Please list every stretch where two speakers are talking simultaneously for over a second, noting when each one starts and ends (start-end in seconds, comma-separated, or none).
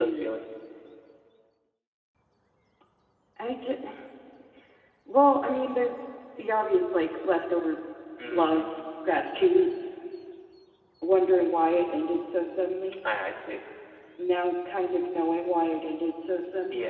none